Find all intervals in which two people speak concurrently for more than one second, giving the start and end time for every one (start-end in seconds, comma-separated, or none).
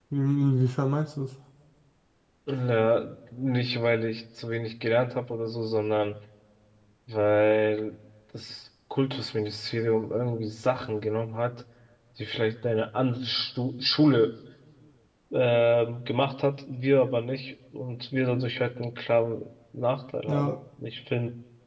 none